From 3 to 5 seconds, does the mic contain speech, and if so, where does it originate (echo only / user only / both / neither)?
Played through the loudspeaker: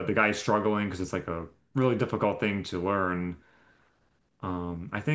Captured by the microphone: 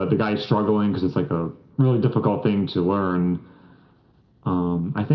echo only